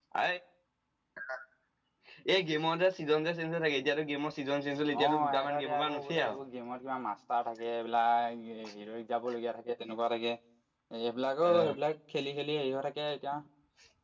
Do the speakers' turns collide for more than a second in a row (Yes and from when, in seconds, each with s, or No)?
Yes, from 5.0 s